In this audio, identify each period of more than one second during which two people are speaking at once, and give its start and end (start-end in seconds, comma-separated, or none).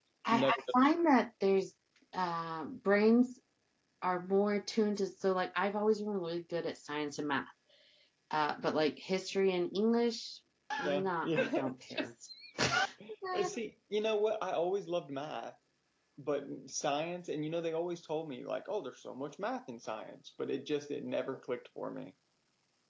10.9-12.1